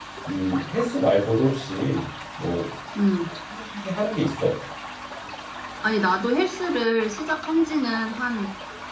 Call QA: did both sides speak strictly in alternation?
Yes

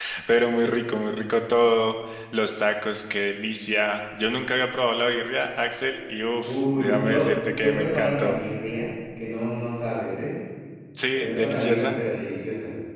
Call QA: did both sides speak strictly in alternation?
No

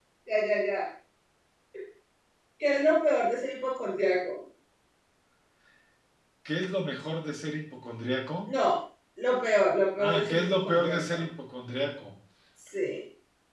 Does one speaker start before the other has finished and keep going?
Yes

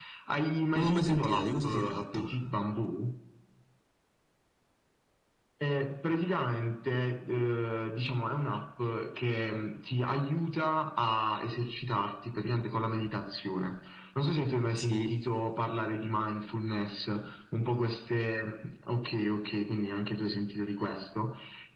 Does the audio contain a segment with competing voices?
Yes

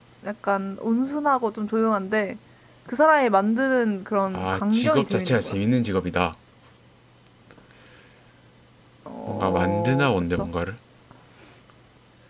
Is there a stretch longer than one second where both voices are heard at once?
Yes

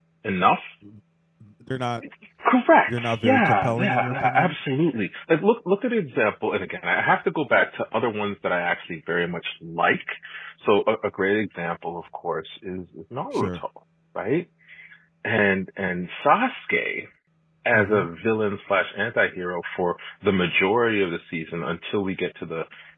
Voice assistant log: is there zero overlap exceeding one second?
No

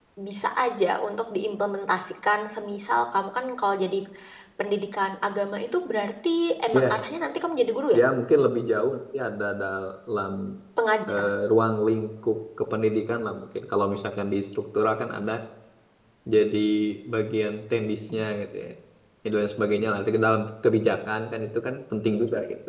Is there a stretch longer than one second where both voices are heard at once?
No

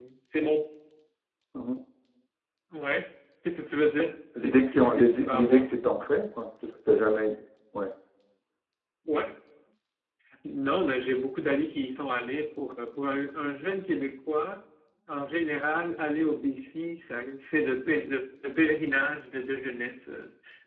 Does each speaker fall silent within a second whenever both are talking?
No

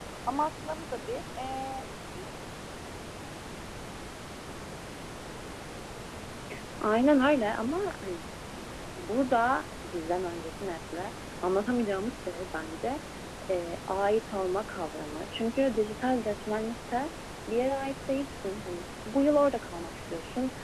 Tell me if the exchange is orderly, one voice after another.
Yes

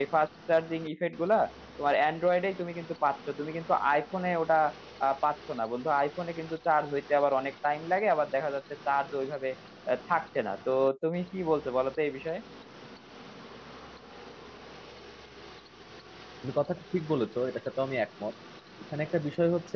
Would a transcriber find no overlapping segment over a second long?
Yes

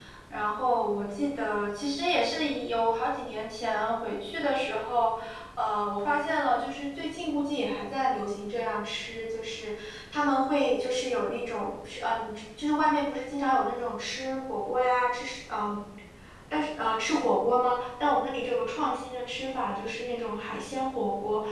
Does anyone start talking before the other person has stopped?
No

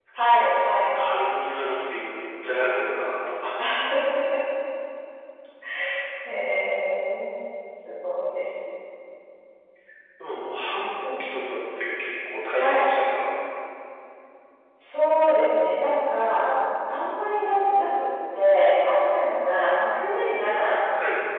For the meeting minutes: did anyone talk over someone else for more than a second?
No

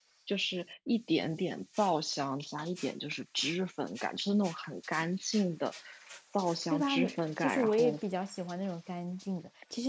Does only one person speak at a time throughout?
No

